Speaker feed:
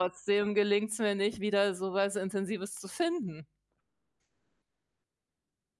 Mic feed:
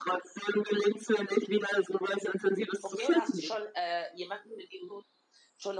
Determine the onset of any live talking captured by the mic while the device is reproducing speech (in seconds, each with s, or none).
2.8 s